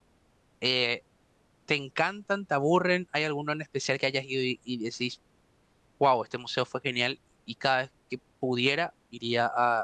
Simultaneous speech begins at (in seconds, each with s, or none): none